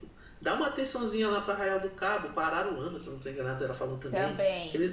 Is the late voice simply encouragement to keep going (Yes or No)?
Yes